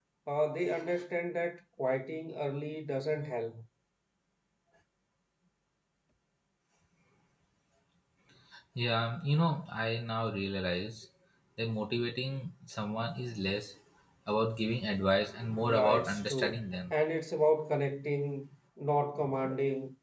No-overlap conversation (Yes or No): No